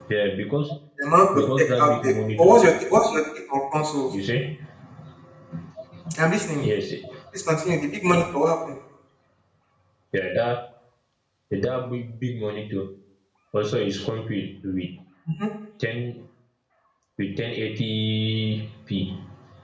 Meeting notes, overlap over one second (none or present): present